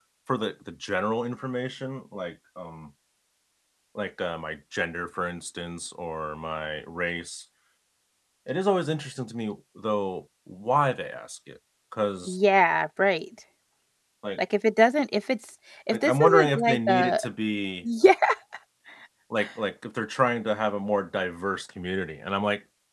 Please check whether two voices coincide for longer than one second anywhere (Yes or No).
Yes